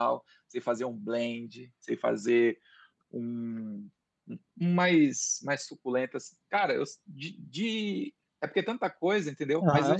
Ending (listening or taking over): taking over